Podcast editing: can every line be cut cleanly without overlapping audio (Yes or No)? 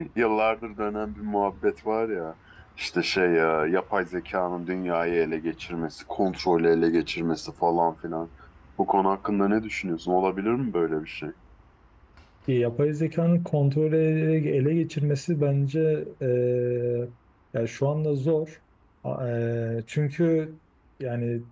Yes